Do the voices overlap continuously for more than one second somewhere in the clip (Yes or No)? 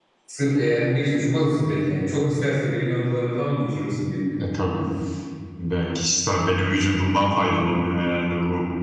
No